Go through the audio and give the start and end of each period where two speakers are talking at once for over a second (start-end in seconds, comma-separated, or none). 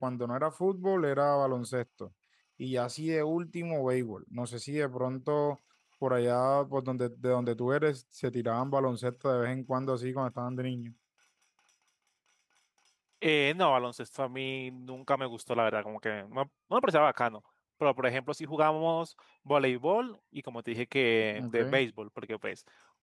none